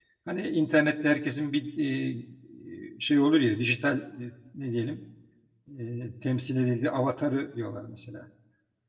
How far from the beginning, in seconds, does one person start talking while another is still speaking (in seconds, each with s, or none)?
none